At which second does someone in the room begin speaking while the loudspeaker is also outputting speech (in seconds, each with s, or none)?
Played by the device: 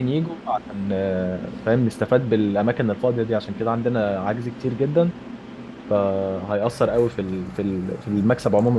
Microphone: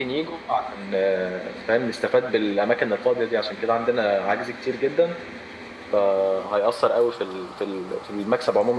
none